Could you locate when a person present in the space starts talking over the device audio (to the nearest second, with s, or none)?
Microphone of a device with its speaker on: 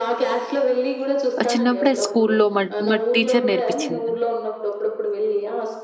1 s